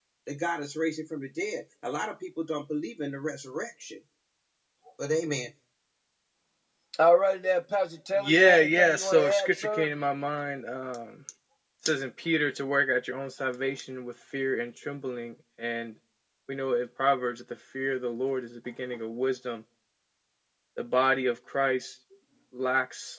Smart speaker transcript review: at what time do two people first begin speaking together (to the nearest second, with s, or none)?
8 s